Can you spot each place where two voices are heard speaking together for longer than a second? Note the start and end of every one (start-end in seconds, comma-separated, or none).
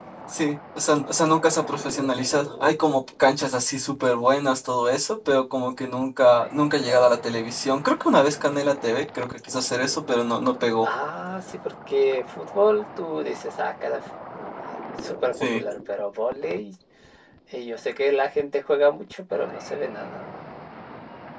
none